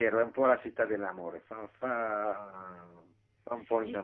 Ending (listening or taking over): taking over